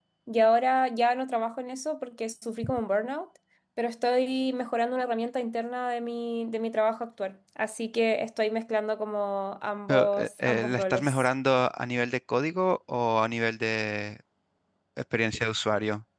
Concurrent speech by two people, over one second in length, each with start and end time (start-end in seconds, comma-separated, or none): 9.9-11.3